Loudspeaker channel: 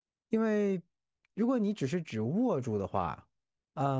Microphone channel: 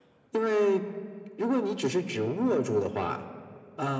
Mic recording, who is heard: echo only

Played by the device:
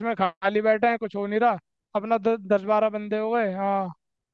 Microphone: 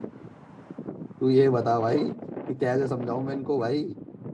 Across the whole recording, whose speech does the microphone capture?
user only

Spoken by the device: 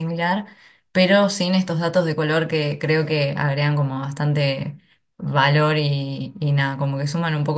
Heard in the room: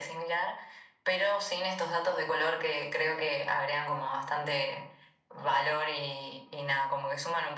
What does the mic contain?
echo only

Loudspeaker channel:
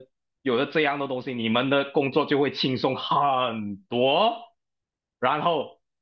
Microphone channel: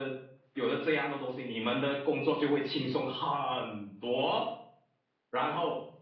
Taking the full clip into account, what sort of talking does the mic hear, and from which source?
echo only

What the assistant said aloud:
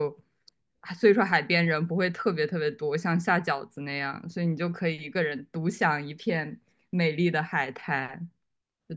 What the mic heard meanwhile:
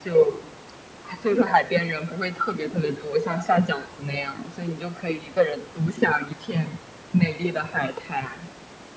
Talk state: echo only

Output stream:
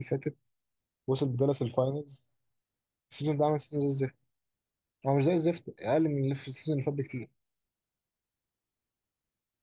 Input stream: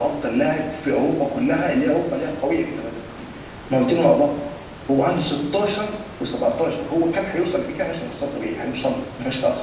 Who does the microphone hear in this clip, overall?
user only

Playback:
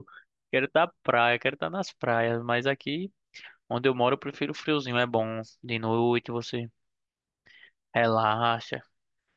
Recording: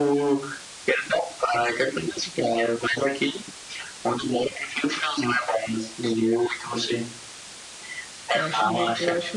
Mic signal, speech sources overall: both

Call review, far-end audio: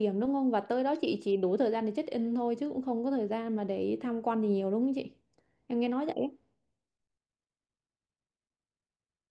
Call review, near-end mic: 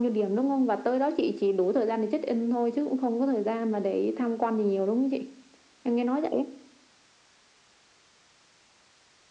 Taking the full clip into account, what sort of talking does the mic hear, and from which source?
echo only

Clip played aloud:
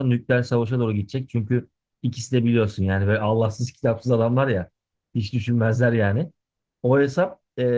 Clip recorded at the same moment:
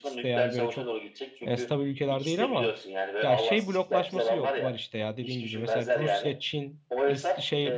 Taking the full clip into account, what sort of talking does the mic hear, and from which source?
both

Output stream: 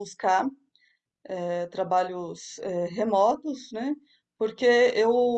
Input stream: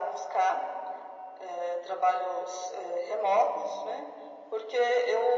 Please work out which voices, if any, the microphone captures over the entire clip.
echo only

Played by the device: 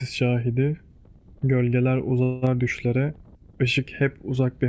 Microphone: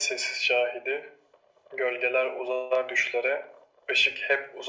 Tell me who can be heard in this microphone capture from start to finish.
echo only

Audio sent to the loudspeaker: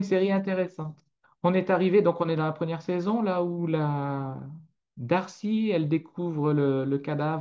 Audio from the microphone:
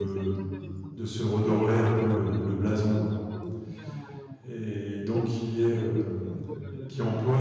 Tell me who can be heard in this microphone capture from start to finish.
both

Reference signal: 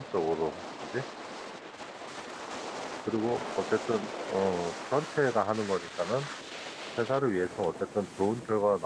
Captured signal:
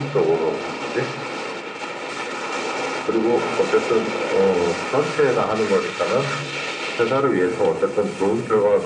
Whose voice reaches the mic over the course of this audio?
echo only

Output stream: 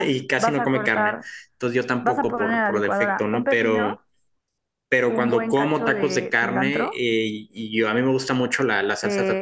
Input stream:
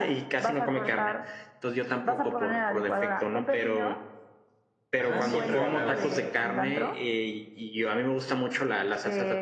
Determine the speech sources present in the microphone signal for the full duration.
both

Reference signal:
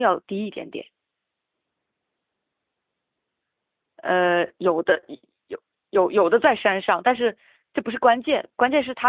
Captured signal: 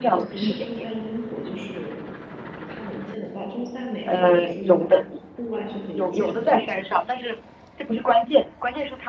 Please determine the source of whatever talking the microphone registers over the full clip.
both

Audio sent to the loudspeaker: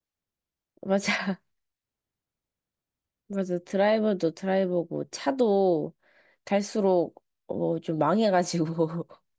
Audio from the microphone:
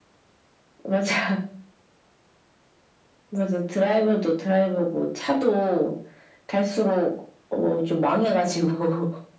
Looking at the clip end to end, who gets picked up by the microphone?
echo only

